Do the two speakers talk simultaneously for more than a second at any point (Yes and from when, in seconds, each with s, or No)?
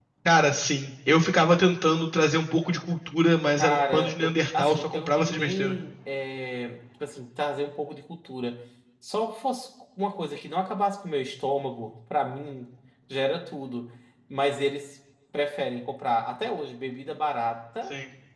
Yes, from 3.6 s